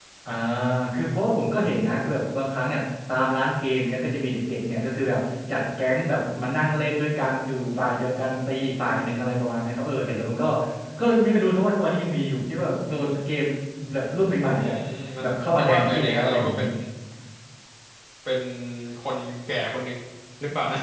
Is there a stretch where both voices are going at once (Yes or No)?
Yes